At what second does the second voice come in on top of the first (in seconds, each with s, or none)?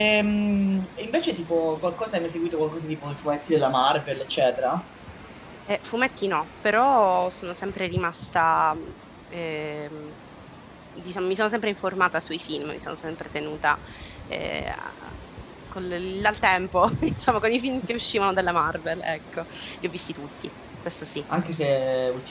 none